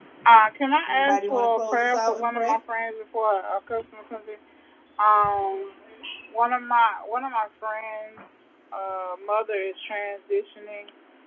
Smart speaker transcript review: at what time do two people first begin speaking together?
0.9 s

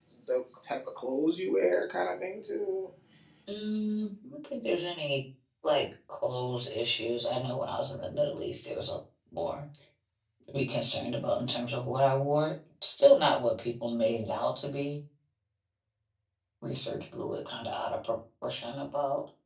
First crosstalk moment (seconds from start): none

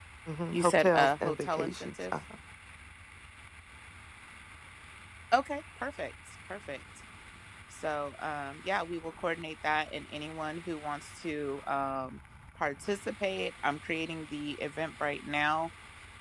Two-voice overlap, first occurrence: 0.5 s

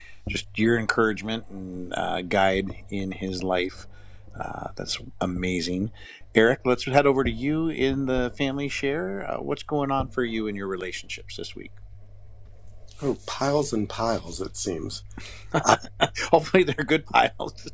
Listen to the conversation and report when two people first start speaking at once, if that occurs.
none

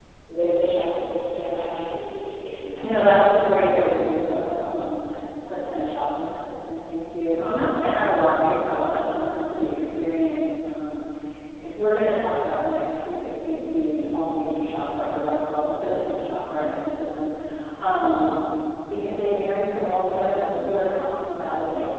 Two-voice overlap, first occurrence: 2.8 s

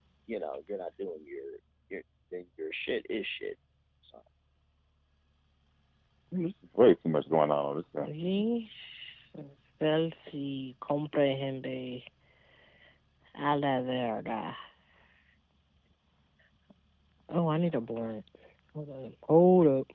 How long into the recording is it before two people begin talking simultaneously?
none

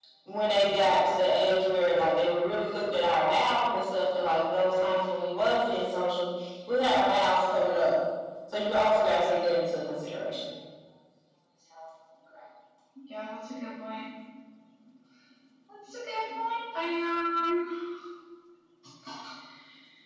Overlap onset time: none

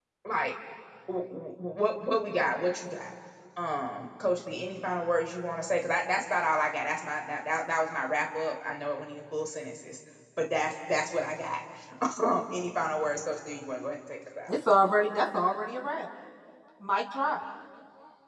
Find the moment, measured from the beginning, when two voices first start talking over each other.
none

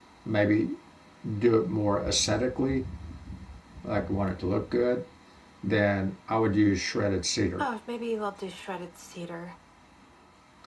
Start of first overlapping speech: none

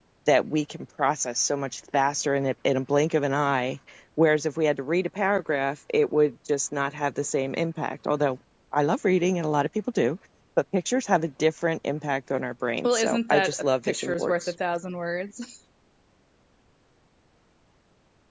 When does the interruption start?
12.8 s

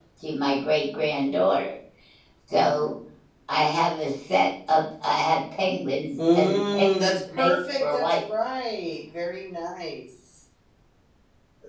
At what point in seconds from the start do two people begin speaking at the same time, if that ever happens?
6.2 s

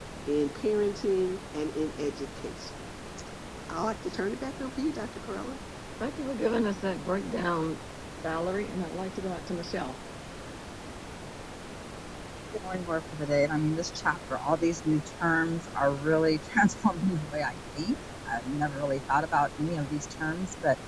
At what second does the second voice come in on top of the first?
none

